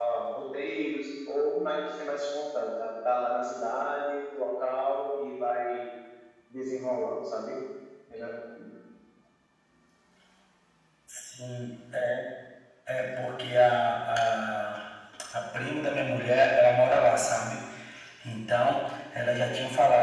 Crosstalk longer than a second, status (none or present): none